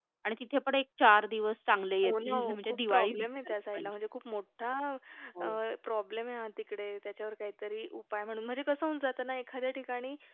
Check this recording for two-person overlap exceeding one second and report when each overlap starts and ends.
2.0-3.9

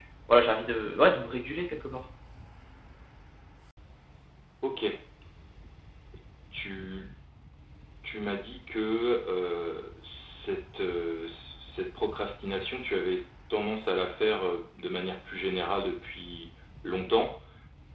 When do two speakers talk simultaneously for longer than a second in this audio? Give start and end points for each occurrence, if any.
none

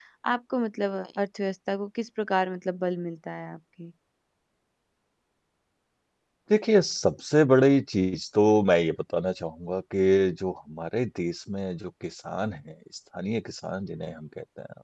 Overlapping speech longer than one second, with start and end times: none

